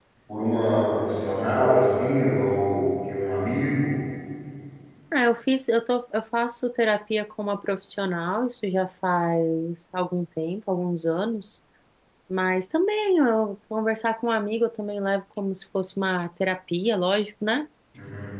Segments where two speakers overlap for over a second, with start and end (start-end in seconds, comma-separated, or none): none